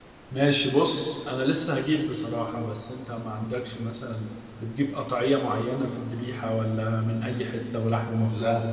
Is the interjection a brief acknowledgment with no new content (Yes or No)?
No